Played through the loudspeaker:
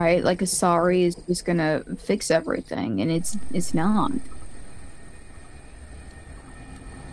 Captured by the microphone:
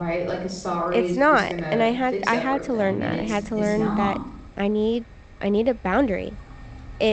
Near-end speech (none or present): present